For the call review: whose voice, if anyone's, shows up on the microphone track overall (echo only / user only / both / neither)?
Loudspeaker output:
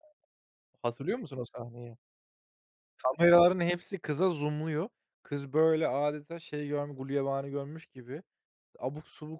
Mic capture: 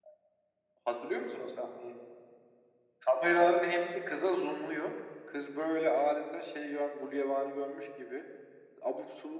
echo only